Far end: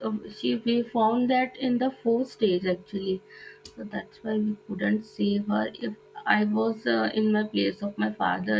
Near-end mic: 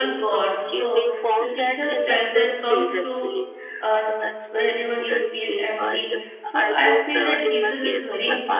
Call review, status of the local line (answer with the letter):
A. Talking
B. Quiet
A